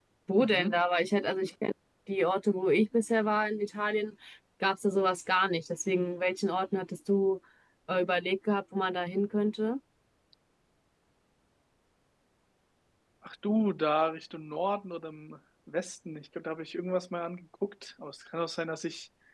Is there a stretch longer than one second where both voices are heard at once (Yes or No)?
No